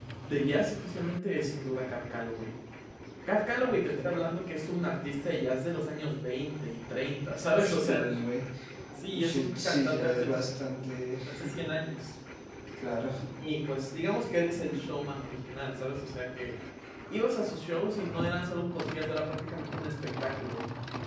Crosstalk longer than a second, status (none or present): present